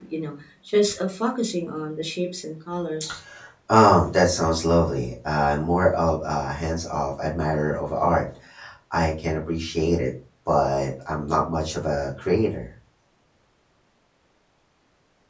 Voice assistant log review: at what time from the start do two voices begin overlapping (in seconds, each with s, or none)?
none